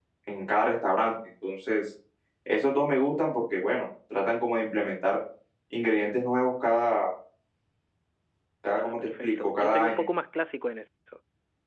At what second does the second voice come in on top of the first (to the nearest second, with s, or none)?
9 s